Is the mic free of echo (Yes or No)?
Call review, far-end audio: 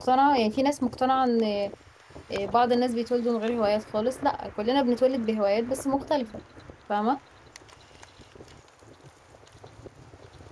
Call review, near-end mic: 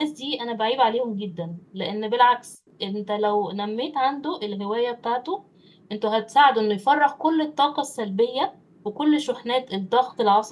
Yes